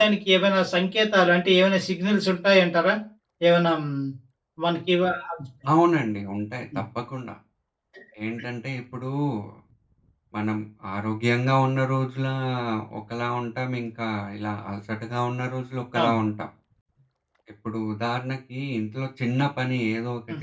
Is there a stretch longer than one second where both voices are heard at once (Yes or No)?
No